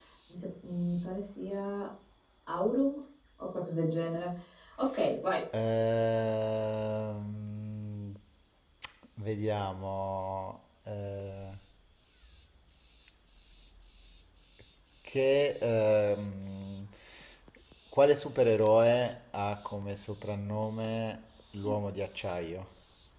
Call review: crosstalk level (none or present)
none